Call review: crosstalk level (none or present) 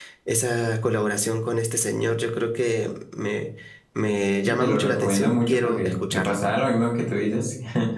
present